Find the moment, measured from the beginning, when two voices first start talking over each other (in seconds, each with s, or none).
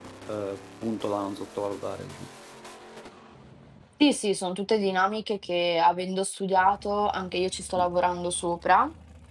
none